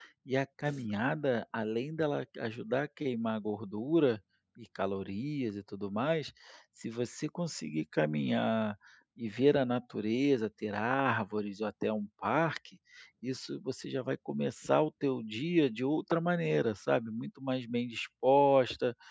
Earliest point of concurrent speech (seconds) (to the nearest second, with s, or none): none